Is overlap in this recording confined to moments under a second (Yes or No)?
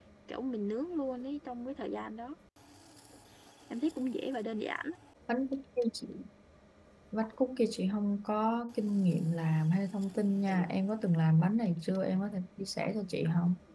Yes